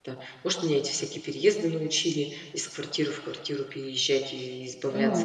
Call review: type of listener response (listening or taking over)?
taking over